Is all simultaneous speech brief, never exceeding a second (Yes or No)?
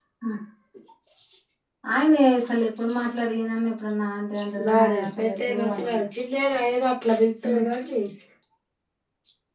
No